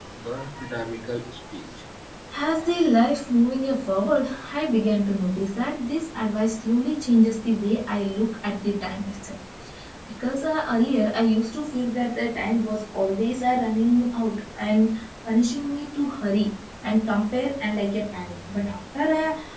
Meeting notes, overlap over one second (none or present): none